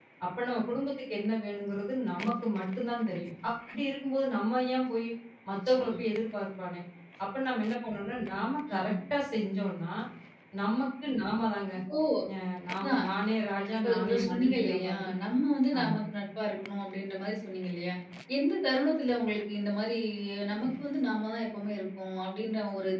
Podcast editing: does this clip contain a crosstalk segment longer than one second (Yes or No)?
Yes